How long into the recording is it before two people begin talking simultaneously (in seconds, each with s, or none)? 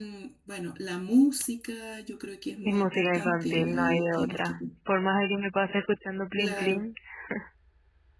2.6 s